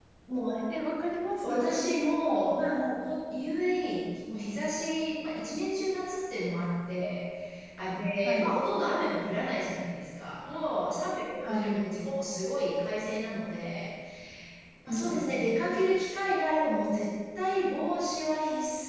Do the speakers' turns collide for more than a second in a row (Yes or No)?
No